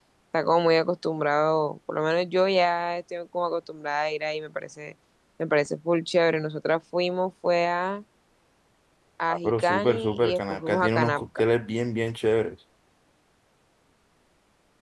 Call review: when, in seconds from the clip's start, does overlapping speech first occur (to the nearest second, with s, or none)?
9 s